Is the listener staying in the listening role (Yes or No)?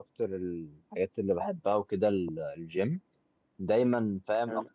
Yes